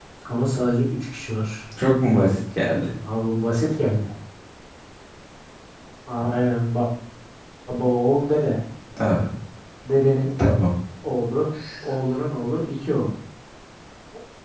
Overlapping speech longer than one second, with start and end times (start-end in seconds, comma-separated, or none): none